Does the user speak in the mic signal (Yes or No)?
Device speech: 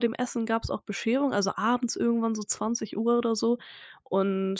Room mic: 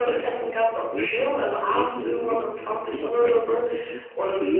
Yes